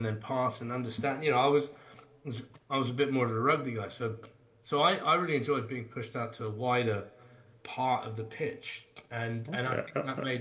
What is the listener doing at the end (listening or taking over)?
taking over